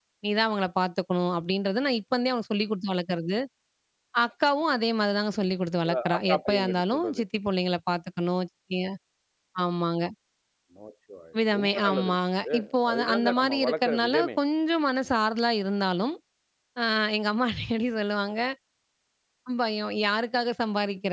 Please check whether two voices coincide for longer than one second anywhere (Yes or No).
Yes